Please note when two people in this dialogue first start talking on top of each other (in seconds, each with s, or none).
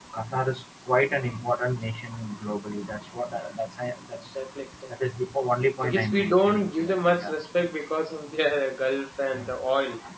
5.8 s